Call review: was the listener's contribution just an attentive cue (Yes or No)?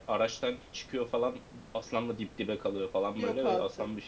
Yes